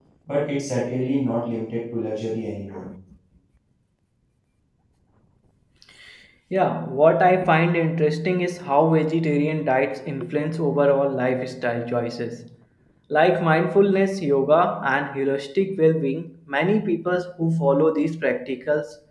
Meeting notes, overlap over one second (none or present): none